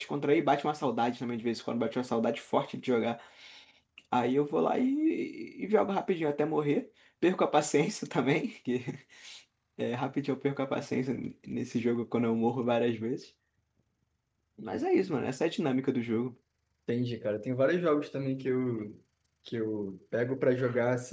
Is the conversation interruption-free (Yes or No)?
Yes